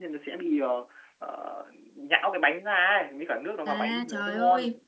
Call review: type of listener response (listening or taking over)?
taking over